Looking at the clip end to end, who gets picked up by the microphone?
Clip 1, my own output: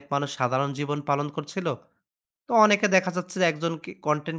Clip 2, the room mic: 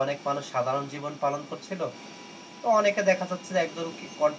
echo only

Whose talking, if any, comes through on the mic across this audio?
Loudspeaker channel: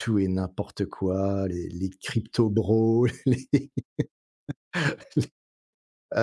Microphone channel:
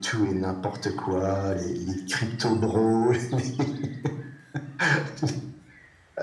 echo only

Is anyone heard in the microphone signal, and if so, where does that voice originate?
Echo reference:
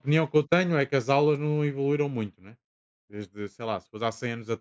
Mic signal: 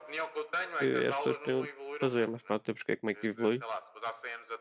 both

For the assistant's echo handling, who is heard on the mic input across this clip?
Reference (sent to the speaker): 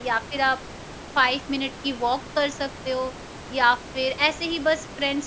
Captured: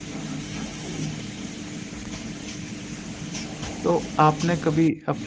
user only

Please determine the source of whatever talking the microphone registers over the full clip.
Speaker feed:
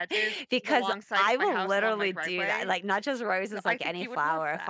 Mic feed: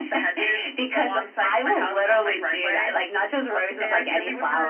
both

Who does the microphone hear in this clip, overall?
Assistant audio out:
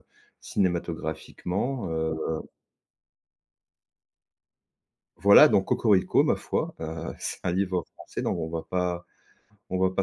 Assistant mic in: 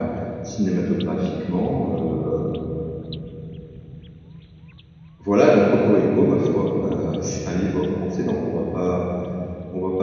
echo only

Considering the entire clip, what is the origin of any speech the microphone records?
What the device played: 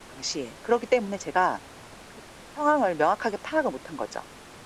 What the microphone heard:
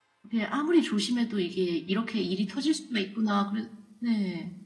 user only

